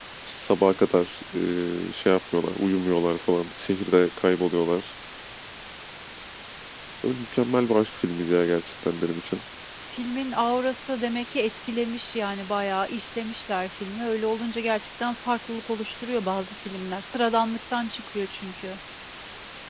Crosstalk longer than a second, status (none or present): none